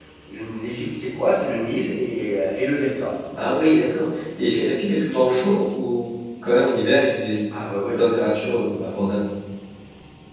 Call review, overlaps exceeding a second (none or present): none